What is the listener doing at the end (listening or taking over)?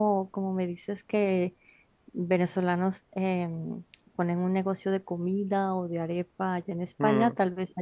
listening